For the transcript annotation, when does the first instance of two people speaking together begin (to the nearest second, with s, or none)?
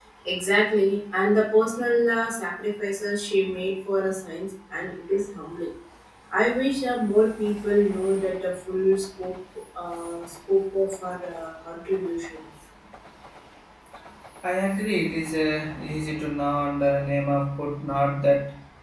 none